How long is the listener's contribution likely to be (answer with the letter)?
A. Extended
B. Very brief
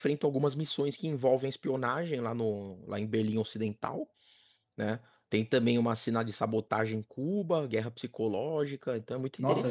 A